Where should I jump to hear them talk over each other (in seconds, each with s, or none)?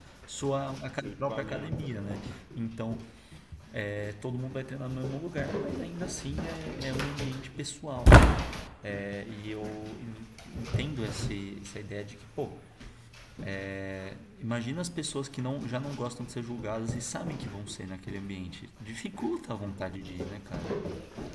0.9 s